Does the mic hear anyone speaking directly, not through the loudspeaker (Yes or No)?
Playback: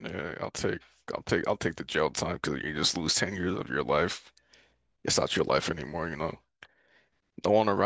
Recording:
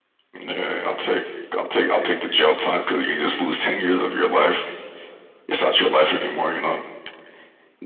No